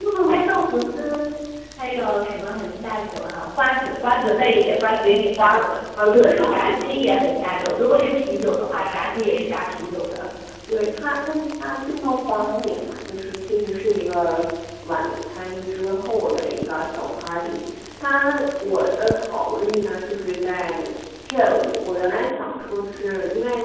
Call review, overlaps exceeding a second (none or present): present